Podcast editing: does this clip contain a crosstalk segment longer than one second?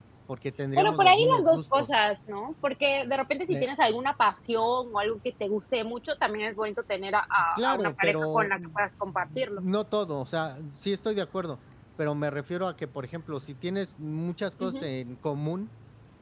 Yes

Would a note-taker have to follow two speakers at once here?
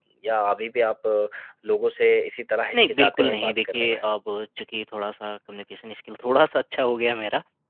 Yes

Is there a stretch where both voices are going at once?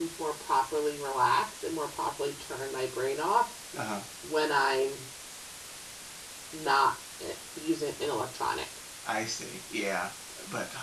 No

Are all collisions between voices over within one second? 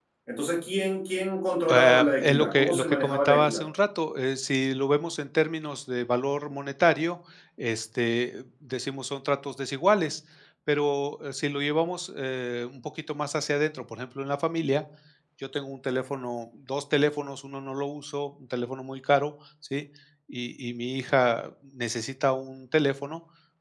No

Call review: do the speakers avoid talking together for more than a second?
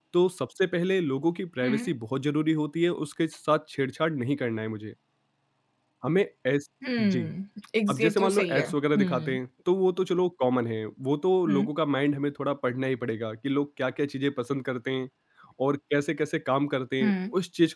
No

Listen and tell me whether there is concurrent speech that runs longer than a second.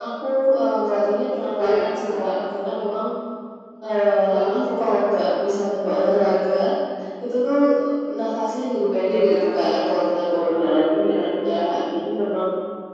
Yes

